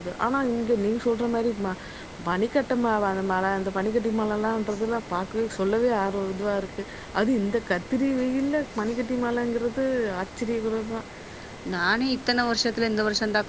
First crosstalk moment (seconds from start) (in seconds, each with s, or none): none